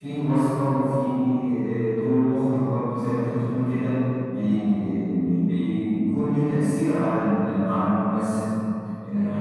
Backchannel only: No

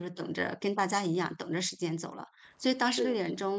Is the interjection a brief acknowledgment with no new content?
Yes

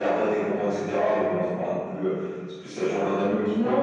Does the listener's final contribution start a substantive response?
Yes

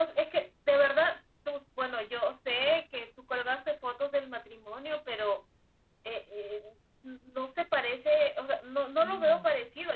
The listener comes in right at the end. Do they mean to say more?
No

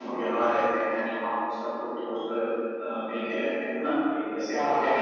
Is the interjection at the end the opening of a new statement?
No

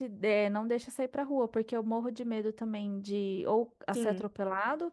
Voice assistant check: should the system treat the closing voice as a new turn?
No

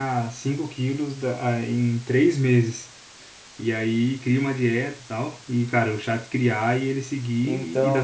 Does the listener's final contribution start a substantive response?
No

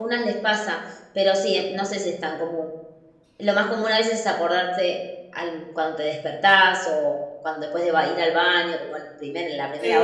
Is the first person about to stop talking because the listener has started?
Yes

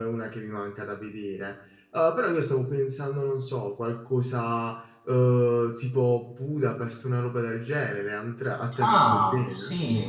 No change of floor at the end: No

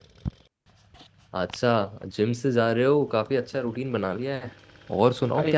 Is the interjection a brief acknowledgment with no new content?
Yes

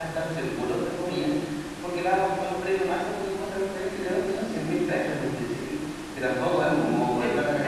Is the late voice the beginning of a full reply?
Yes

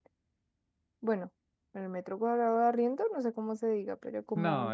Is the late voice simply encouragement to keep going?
No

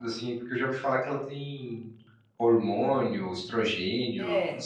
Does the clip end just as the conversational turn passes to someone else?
Yes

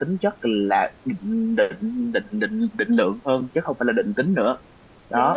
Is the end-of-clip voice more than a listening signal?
Yes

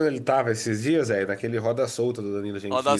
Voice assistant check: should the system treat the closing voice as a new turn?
Yes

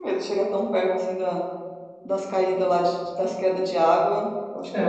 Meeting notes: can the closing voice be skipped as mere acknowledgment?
No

